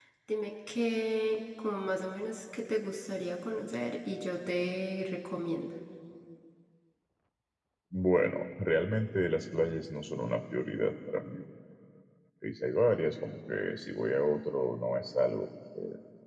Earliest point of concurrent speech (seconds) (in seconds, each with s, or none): none